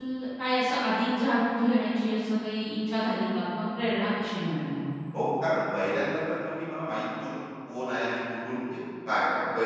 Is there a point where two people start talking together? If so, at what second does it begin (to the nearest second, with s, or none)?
none